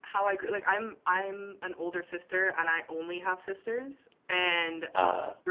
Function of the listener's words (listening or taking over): listening